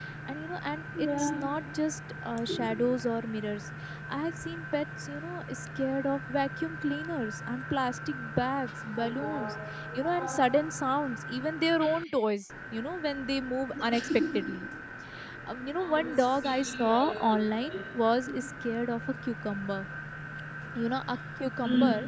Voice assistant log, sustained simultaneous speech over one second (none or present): present